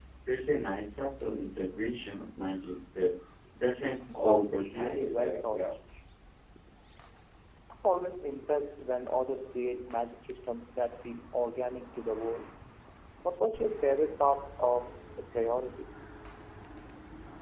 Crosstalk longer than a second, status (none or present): present